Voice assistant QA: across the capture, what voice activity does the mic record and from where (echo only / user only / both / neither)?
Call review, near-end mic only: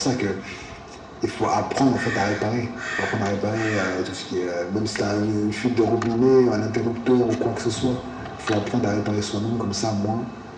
echo only